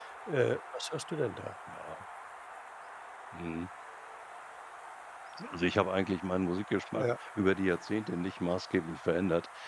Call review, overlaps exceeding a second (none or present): none